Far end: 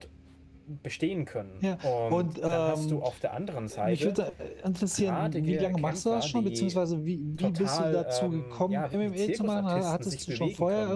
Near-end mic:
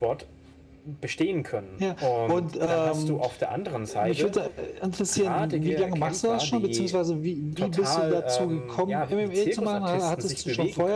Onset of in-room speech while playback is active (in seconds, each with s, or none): none